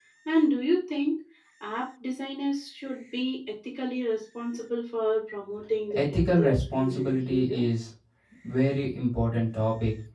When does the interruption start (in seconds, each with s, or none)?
5.9 s